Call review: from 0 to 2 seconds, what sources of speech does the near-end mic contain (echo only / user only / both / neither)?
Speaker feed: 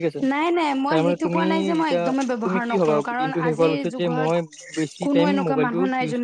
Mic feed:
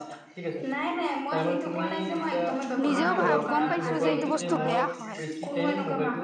echo only